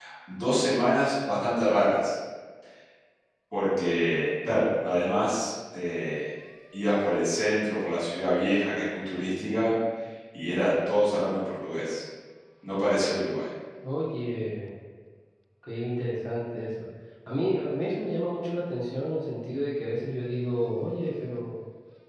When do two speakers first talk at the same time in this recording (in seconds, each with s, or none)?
none